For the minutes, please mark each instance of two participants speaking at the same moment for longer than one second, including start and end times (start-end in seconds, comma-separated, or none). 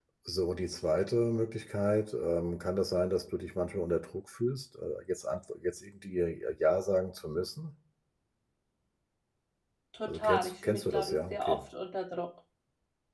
10.1-11.6